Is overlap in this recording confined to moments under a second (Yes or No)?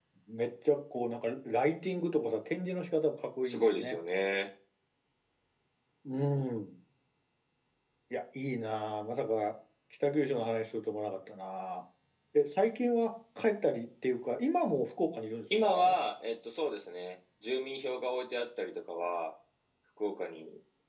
Yes